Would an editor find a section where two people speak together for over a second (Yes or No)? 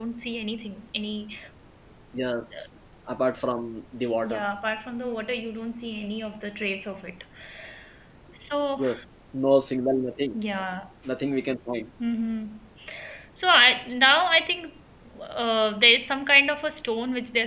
No